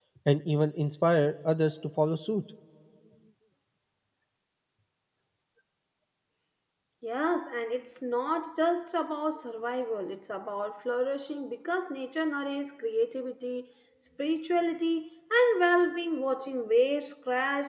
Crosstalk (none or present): none